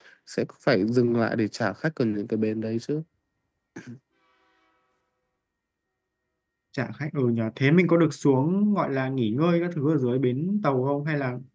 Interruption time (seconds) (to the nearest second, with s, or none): none